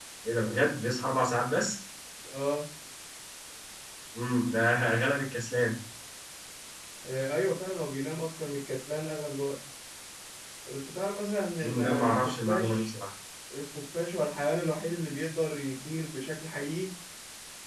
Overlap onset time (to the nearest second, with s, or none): 12 s